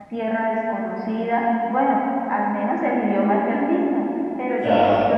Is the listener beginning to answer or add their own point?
No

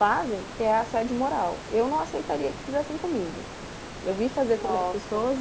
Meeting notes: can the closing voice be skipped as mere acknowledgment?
Yes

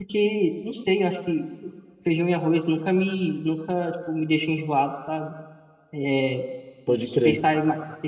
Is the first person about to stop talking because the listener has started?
No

